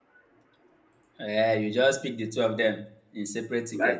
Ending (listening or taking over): taking over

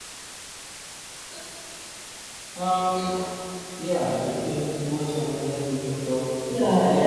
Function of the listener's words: taking over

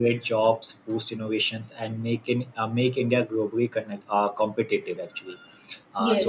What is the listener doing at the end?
listening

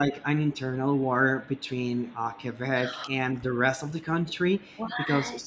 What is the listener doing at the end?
listening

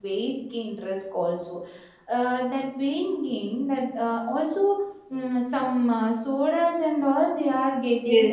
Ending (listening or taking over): taking over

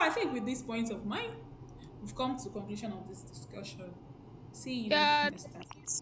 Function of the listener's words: taking over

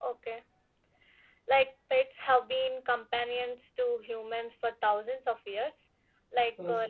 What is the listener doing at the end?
listening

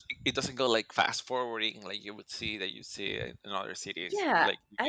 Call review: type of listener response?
taking over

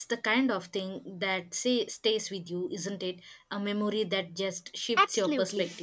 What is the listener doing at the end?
taking over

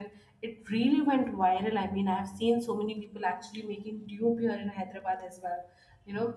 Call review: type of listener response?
listening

